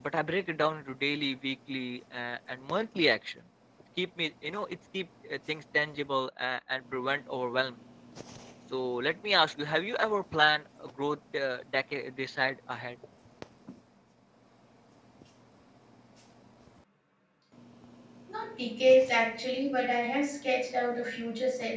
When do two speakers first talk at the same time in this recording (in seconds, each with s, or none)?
none